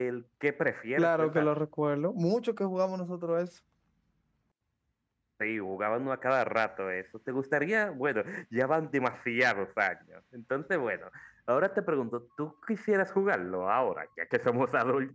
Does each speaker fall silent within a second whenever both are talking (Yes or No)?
Yes